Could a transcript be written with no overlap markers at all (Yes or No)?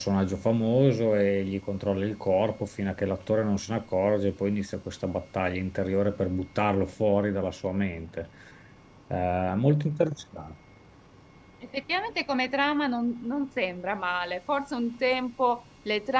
Yes